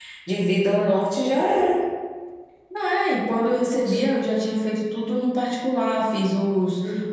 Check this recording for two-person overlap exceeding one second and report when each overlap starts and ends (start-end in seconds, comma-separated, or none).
none